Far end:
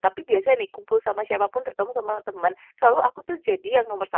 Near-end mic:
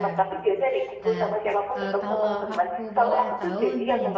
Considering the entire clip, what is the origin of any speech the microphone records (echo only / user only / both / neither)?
both